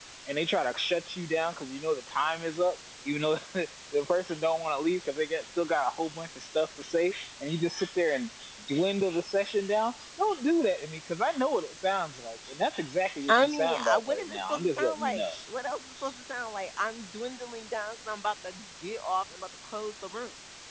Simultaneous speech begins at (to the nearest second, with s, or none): 13 s